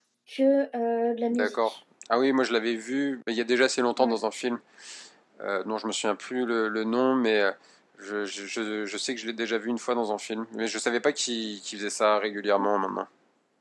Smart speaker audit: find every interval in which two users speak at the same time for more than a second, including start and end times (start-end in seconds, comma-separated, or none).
none